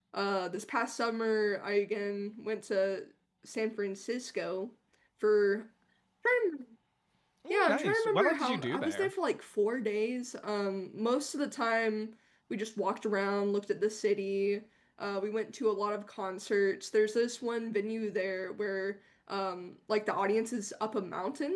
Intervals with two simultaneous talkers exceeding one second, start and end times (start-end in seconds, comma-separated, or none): 7.5-9.1